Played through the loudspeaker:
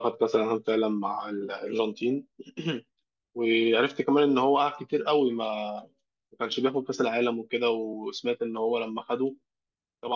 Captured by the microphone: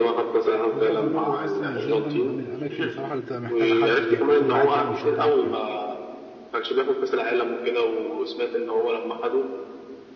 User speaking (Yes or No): Yes